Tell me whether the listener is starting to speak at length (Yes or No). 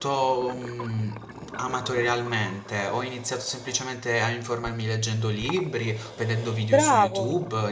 No